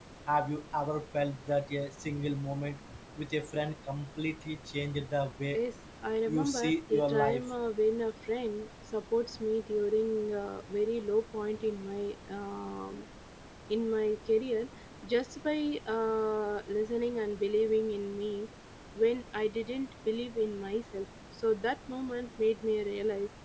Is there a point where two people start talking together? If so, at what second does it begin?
6.3 s

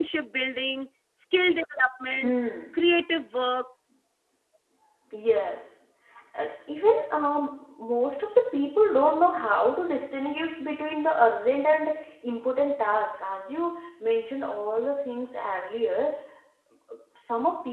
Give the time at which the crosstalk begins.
none

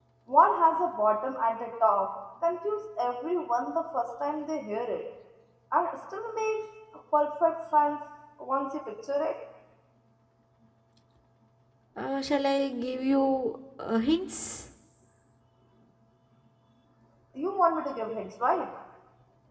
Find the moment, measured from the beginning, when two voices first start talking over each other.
none

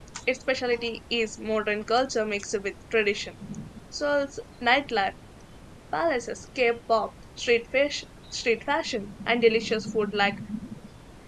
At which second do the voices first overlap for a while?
none

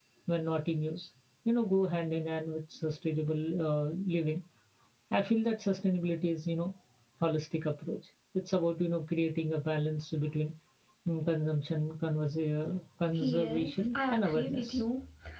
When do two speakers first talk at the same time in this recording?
13.2 s

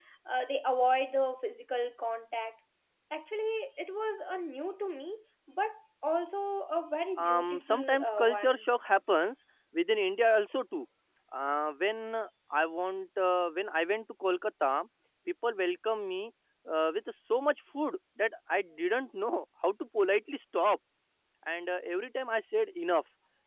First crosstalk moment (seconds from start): 7.2 s

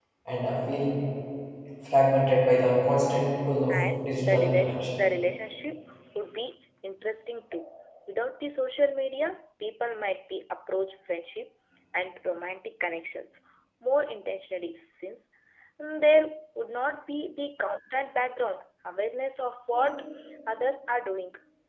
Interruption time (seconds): 3.7 s

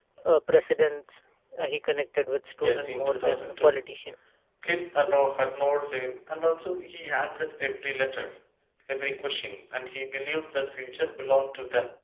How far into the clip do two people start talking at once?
2.6 s

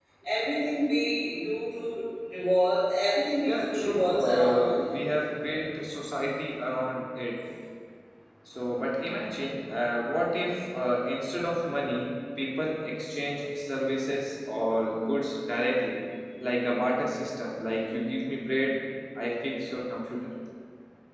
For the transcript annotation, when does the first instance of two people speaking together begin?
3.5 s

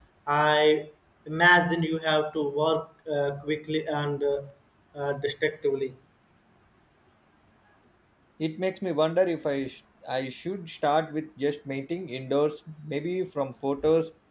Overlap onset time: none

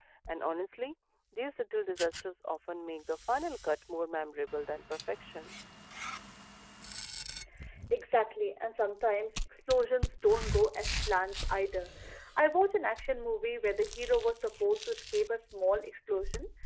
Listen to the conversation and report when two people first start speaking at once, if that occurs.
none

